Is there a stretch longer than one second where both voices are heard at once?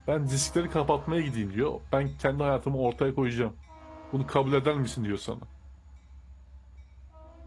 No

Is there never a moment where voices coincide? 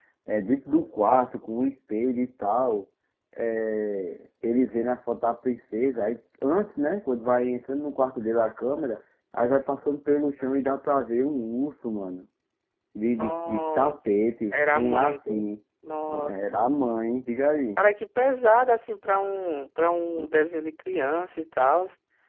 No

